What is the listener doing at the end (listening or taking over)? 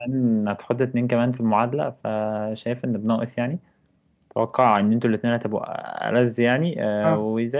listening